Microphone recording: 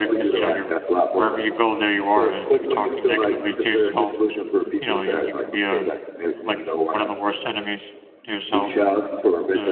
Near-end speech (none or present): present